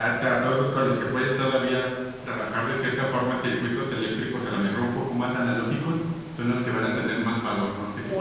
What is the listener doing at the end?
taking over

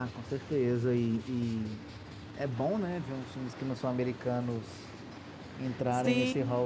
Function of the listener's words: taking over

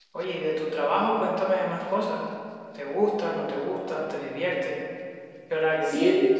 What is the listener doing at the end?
taking over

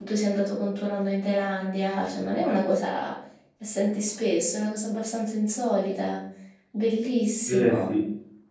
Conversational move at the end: taking over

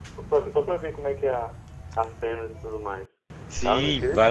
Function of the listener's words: taking over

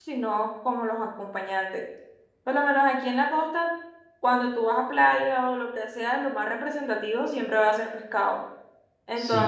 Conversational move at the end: listening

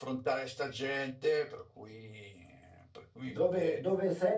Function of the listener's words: taking over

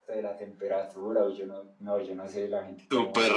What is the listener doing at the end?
taking over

